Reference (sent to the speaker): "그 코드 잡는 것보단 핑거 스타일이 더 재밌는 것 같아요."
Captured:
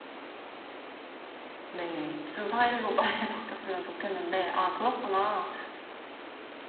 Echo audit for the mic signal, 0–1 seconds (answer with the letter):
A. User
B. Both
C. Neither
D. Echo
C